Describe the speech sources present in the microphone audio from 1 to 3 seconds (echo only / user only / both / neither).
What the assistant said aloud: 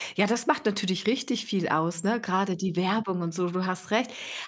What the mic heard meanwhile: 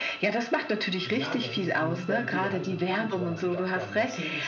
both